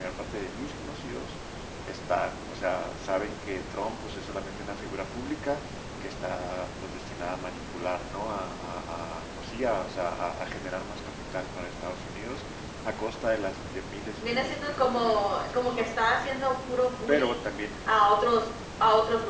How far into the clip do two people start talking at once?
14.2 s

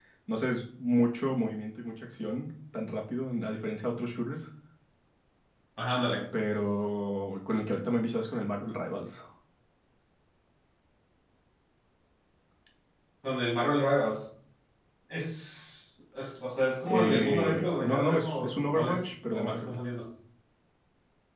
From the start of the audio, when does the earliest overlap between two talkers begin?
16.9 s

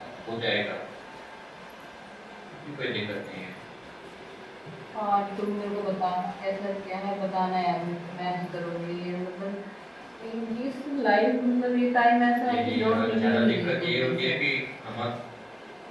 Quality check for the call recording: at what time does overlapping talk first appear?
12.4 s

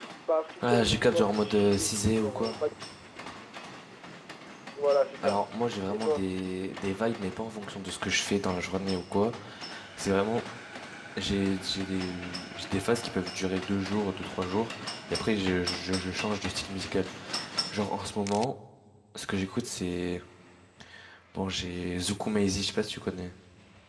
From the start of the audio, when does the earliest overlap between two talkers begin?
0.6 s

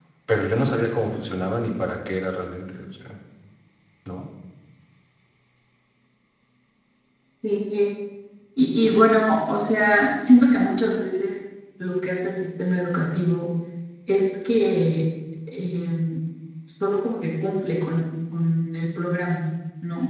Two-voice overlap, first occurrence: none

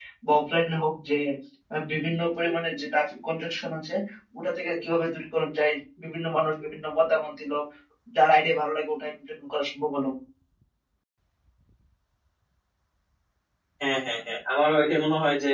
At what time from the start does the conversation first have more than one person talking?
none

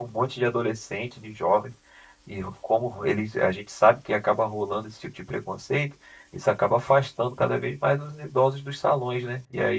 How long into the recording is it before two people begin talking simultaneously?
none

